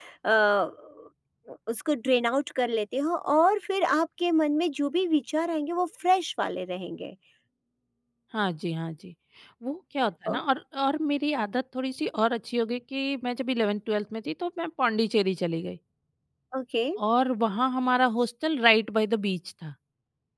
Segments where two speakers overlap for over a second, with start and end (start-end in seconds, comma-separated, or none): none